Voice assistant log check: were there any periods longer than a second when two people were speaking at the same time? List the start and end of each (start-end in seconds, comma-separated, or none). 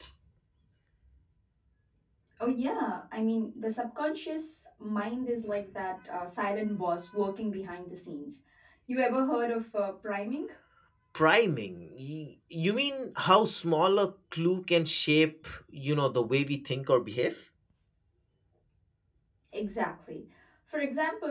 none